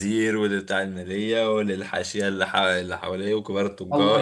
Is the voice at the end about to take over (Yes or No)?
Yes